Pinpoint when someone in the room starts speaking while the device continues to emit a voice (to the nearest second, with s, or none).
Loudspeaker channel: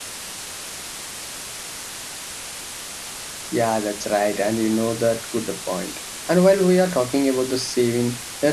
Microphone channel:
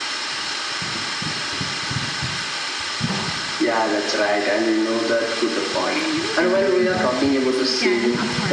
6 s